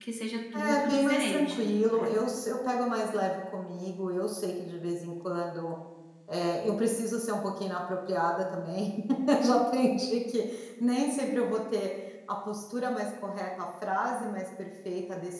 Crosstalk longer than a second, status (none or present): present